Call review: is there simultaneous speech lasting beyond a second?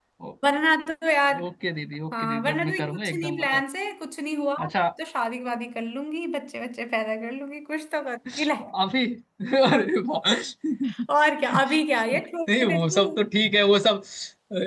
Yes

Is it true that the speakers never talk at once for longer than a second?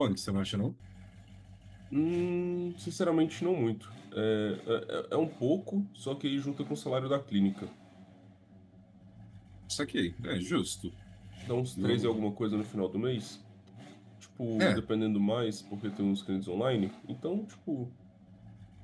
Yes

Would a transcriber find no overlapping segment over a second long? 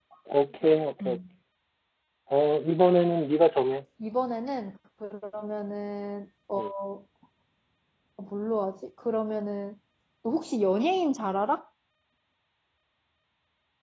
Yes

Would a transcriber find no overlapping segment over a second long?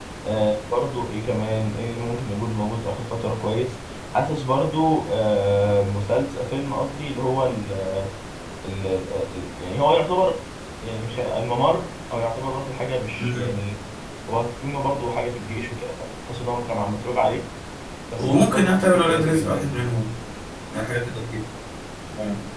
No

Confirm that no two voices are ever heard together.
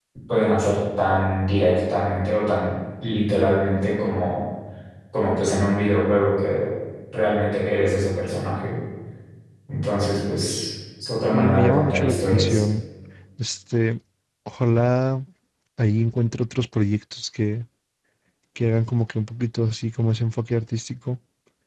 No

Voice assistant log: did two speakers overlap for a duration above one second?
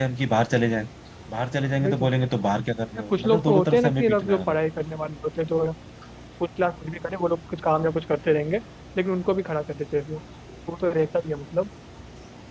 Yes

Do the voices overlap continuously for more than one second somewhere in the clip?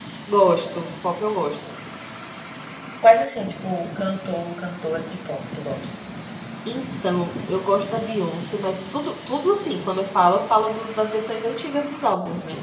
No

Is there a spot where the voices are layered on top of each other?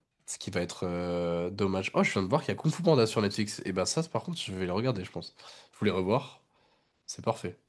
No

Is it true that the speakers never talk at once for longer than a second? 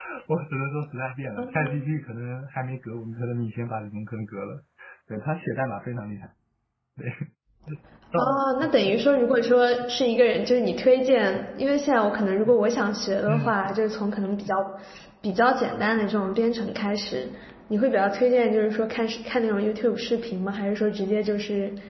Yes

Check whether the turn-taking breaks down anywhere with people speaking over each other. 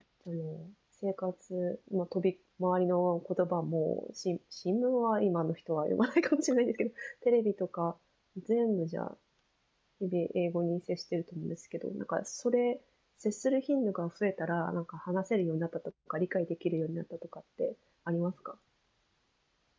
No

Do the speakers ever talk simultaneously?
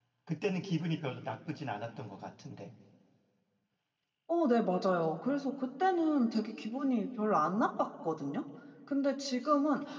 No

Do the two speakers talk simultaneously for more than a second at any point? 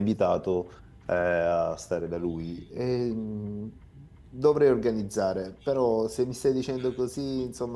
No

